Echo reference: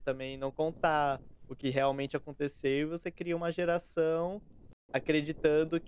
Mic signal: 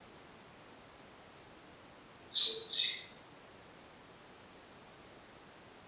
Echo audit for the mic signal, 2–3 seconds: user only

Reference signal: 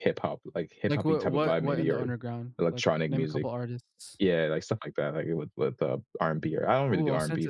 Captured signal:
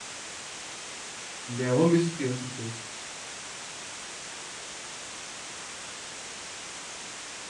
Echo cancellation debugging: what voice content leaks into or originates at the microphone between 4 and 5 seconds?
neither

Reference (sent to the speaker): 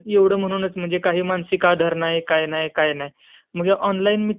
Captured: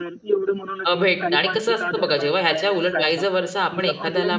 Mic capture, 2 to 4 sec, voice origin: both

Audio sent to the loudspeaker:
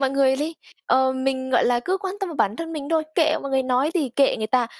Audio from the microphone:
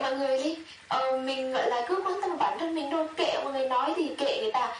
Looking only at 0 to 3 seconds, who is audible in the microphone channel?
echo only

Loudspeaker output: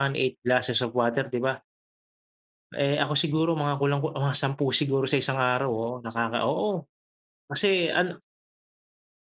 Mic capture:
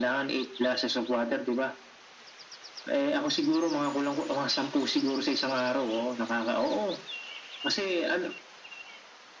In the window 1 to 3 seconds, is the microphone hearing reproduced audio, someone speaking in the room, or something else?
echo only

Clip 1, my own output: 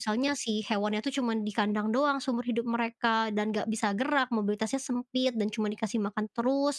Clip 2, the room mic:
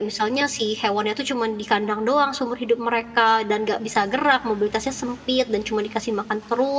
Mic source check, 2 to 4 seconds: echo only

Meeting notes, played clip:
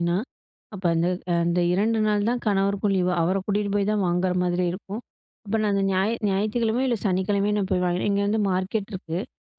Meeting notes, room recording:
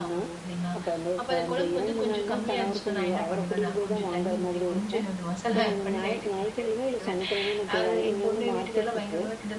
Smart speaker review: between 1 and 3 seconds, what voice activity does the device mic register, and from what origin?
both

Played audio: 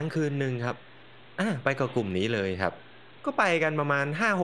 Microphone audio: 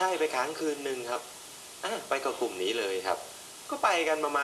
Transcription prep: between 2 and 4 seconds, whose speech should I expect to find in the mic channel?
echo only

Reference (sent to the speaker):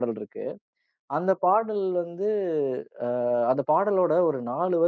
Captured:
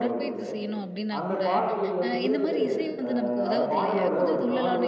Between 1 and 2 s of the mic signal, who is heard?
both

